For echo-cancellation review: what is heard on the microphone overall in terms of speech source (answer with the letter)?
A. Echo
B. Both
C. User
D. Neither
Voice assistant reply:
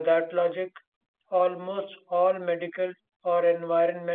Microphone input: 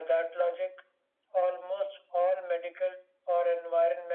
A